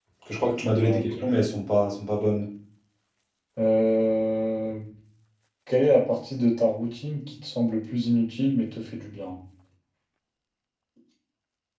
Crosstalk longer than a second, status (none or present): none